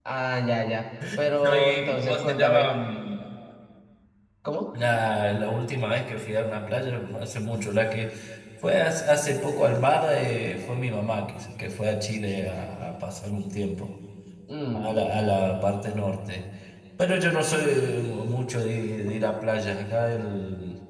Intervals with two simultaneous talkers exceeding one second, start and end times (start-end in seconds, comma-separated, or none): 1.4-2.8